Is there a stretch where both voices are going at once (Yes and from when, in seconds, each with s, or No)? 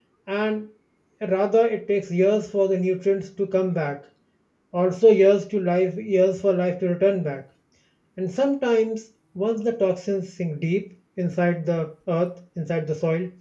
No